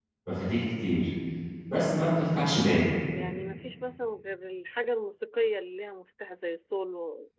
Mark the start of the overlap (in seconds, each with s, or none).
none